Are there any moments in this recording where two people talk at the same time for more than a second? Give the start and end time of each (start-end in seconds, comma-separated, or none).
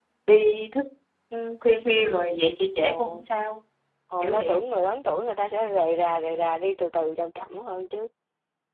none